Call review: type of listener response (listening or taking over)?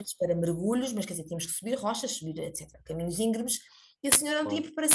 listening